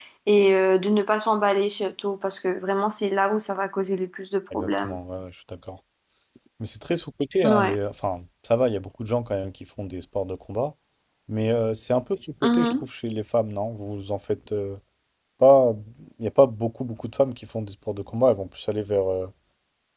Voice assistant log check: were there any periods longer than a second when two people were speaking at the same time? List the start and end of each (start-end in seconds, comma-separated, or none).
none